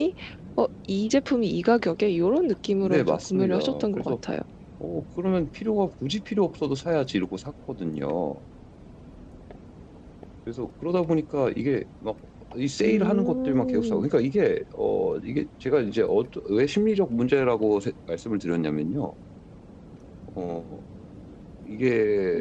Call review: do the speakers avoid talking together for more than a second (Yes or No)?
No